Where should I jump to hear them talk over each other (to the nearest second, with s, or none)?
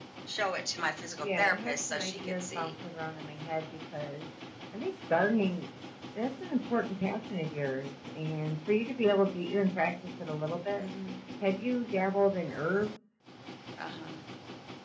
1 s